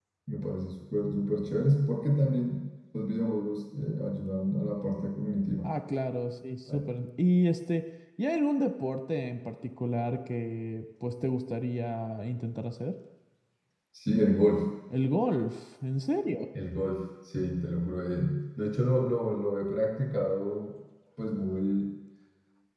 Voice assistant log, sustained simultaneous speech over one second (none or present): none